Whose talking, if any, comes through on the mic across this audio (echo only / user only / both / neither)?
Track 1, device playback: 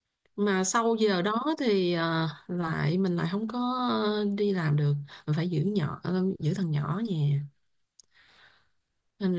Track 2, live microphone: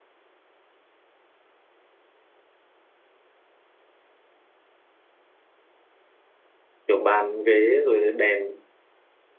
user only